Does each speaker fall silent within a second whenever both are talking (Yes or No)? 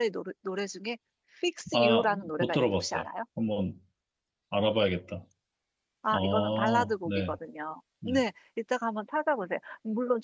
No